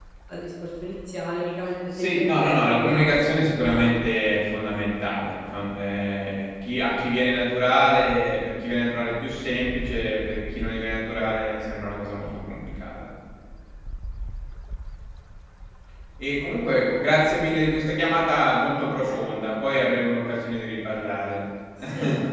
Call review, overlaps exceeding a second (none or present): present